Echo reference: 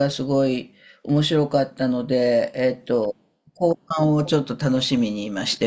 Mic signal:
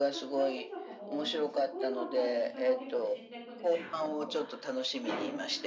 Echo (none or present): present